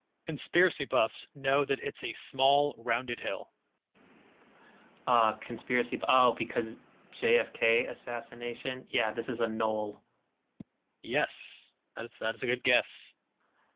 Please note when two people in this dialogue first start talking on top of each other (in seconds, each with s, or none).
none